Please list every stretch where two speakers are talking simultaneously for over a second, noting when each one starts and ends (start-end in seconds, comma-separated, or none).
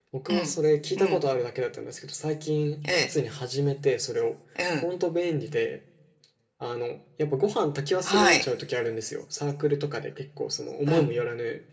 none